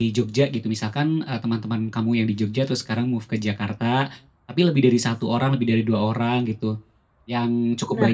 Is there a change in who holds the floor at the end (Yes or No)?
No